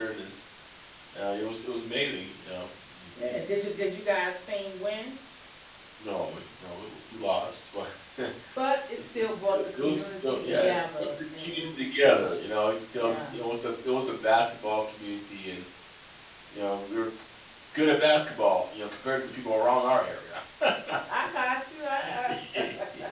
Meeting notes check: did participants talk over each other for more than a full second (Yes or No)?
Yes